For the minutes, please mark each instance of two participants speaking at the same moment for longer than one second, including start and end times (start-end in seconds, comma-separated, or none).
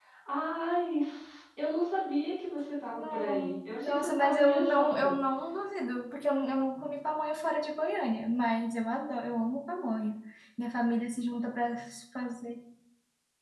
2.9-5.1